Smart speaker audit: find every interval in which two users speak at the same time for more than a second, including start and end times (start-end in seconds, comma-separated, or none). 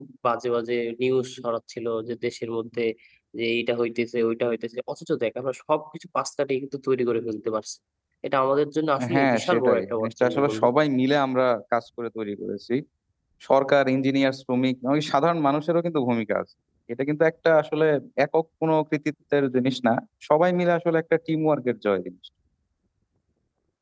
9.1-10.7